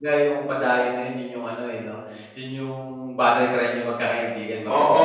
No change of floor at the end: No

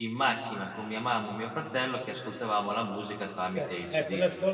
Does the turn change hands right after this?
Yes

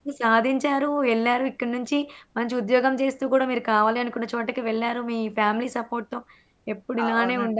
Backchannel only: Yes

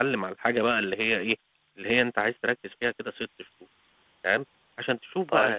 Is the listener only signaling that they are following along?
Yes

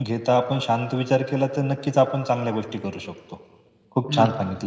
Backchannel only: Yes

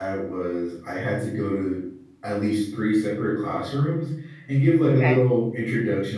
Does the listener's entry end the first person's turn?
No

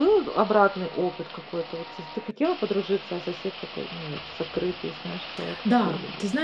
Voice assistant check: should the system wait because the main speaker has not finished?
No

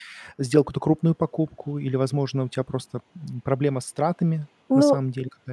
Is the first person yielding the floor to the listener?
Yes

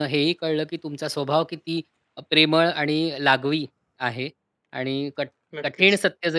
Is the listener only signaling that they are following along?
Yes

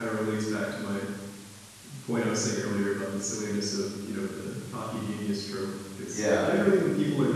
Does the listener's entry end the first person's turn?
No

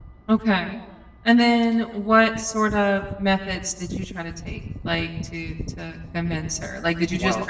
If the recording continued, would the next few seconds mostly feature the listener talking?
No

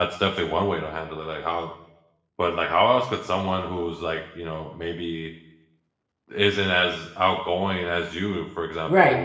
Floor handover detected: Yes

